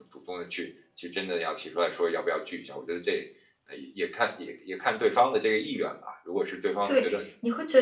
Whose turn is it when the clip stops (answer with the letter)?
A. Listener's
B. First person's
A